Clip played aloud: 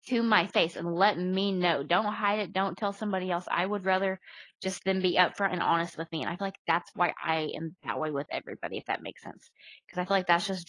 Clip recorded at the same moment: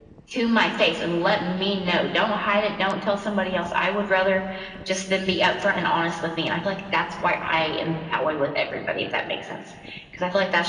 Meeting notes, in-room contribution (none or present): none